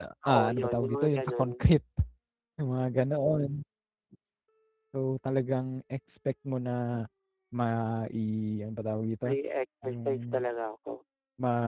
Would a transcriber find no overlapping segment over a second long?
No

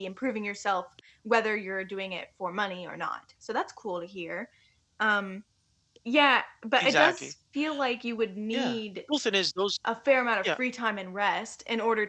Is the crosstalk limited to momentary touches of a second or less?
Yes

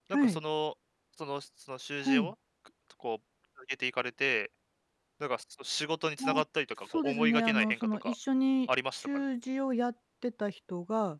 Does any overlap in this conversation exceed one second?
Yes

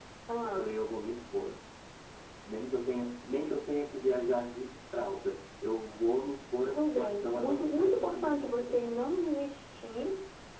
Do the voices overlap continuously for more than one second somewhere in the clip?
Yes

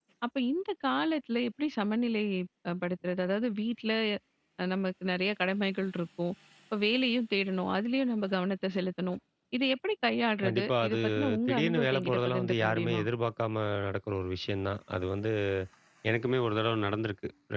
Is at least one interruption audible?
Yes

